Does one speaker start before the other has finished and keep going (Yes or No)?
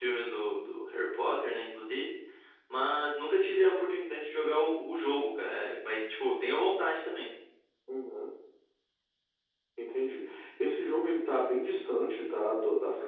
No